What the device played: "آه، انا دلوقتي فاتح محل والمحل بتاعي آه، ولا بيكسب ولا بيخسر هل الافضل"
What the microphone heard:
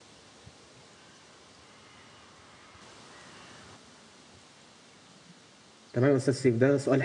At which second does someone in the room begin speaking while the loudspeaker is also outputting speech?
6 s

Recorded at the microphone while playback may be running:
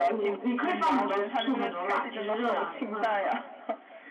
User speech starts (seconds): none

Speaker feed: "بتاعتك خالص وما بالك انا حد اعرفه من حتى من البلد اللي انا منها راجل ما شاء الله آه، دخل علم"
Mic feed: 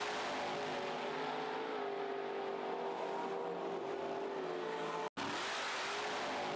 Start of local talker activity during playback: none

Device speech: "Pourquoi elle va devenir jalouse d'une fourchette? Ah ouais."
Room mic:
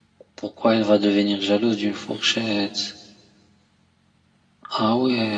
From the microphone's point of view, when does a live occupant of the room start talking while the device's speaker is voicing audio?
none

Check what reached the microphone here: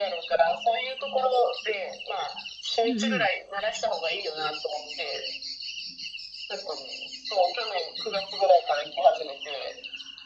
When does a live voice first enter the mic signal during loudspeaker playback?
3 s

